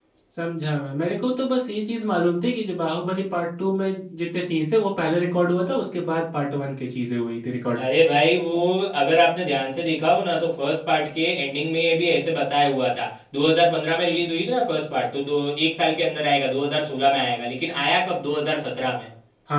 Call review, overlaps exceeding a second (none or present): none